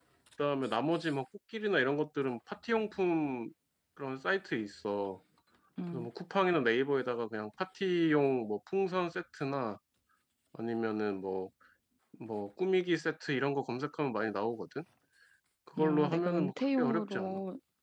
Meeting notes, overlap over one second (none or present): present